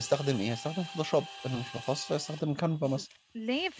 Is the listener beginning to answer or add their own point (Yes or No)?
Yes